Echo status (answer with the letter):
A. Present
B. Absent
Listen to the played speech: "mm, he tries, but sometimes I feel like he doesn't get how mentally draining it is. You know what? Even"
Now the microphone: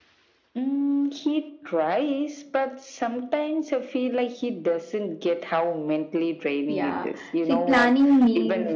A